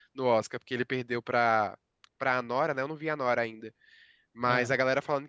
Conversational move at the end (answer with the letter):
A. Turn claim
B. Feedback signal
B